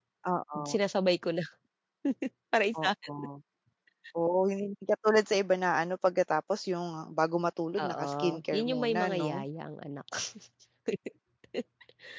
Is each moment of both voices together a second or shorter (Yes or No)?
No